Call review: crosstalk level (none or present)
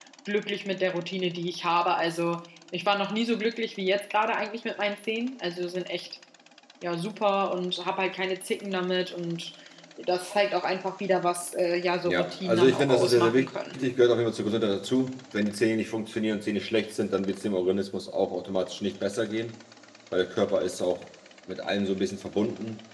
present